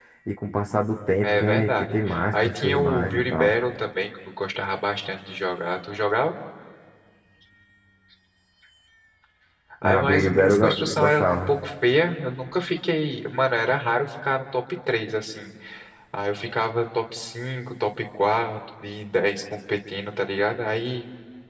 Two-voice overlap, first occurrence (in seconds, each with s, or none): 1.2 s